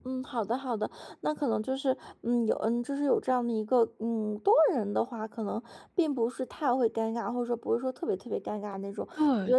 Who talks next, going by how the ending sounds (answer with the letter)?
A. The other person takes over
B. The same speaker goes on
A